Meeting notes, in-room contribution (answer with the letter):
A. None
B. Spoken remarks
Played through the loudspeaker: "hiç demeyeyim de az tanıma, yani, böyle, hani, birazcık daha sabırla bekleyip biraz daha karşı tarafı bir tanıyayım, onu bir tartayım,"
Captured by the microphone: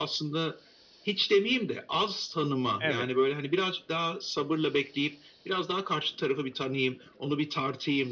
B